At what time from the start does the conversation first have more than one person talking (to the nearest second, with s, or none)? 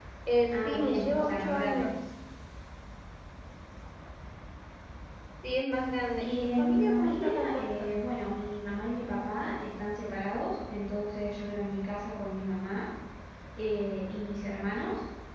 1 s